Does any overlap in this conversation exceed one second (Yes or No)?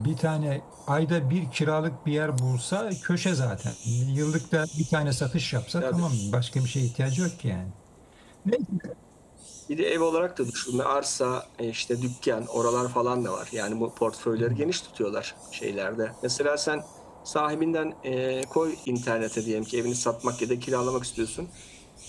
No